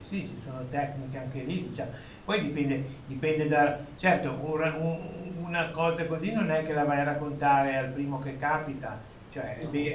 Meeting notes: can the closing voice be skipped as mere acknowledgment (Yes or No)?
Yes